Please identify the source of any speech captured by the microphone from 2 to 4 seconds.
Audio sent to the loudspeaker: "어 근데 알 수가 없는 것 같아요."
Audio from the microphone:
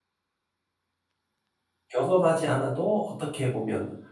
user only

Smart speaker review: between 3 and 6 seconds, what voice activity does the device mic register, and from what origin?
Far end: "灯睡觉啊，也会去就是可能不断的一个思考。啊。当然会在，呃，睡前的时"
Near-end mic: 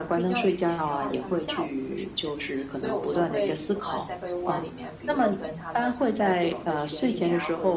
both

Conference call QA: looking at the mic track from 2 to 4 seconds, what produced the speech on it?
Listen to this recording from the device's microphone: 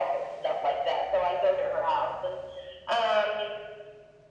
echo only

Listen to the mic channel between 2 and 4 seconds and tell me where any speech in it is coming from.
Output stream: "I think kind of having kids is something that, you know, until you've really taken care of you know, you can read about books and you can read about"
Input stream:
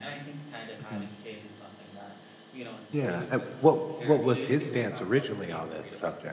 both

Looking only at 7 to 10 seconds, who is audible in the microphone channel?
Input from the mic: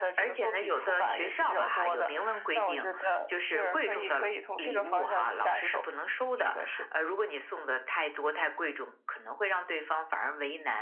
echo only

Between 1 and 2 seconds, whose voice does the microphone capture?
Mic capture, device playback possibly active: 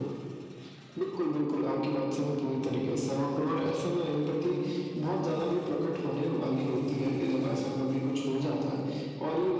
echo only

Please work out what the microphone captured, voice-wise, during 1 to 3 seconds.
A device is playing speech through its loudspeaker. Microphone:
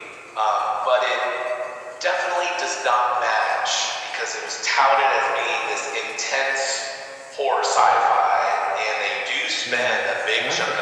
echo only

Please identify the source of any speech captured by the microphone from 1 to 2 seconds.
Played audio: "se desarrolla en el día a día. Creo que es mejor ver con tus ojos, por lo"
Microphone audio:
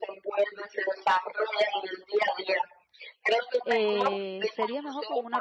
echo only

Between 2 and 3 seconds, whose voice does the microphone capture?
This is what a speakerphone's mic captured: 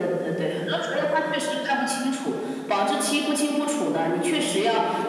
echo only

